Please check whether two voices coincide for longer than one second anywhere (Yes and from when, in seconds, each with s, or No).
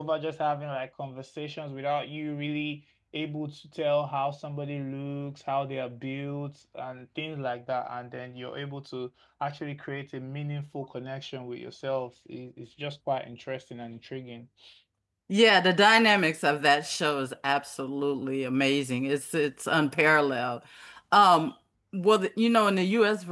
No